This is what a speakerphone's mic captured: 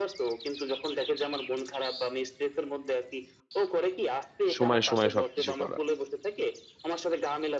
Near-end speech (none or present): present